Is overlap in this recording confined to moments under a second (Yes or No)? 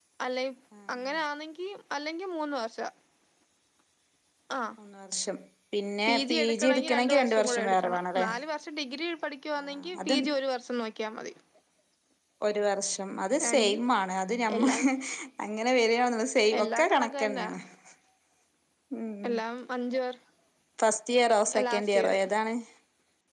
No